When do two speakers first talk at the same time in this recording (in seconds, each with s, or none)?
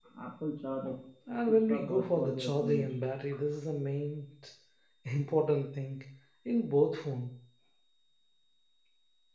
1.5 s